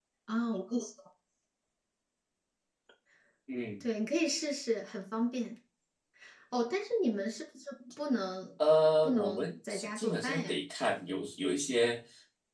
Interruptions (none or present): present